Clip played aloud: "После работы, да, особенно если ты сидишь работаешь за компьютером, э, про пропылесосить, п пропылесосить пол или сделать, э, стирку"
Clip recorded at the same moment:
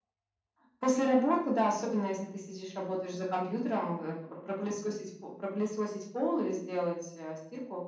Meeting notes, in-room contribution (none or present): none